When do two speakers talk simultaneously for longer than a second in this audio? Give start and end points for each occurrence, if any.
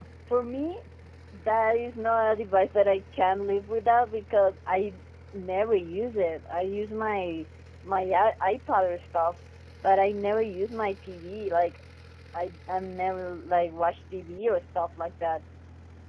none

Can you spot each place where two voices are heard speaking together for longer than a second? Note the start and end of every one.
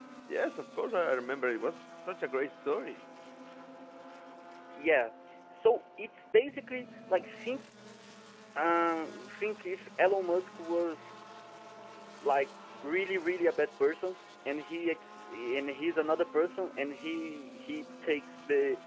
none

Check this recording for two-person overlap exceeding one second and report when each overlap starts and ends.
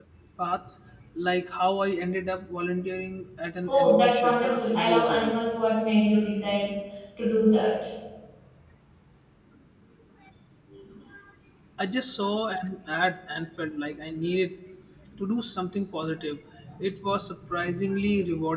3.7-5.4

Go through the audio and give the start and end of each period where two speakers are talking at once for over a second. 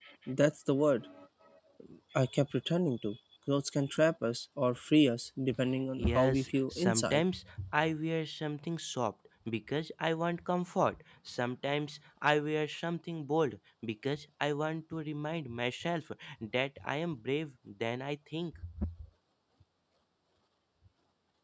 6.0-7.2

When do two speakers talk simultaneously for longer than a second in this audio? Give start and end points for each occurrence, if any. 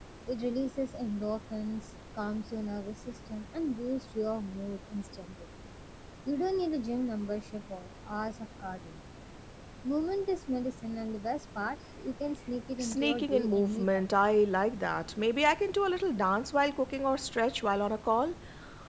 12.8-14.0

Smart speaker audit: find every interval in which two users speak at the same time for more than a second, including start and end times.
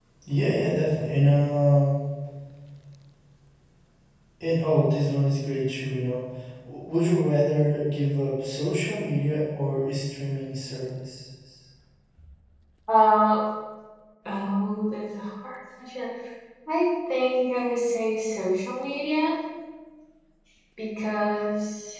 none

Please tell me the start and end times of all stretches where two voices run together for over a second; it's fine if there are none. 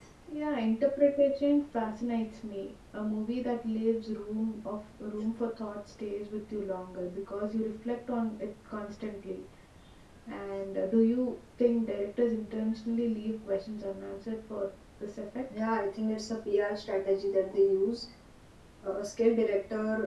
none

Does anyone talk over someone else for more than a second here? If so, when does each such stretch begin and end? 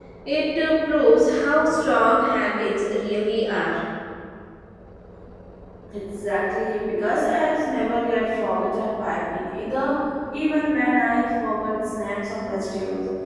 none

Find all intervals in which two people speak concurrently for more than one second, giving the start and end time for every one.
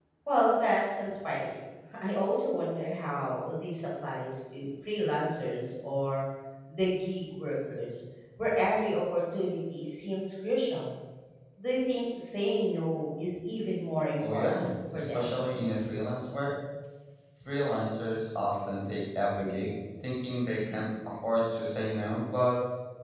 14.2-15.4

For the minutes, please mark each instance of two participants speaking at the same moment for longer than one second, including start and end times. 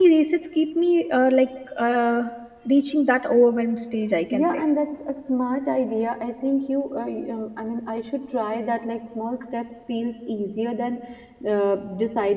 none

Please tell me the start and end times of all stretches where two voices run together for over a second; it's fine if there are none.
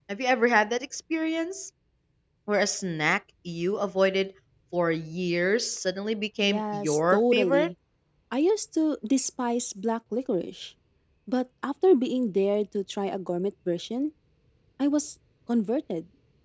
6.4-7.7

